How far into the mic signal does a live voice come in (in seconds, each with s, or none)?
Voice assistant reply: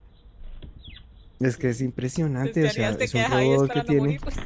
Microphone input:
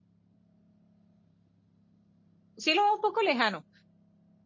2.6 s